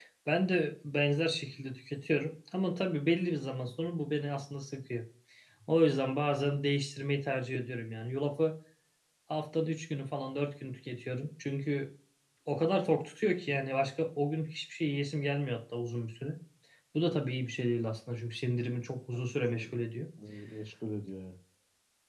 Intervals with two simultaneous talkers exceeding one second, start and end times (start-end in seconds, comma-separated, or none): none